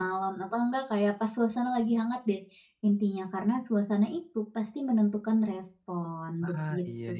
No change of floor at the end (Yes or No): No